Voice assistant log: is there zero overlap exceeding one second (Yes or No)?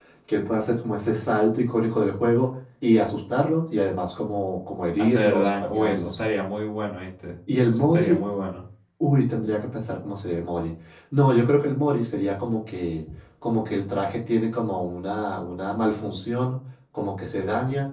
No